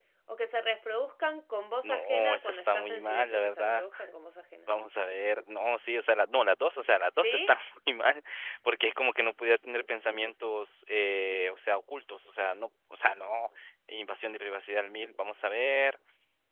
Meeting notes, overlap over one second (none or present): present